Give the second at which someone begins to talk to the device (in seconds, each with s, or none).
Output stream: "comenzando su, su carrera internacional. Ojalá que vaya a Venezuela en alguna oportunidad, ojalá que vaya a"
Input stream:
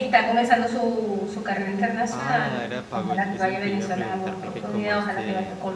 2.1 s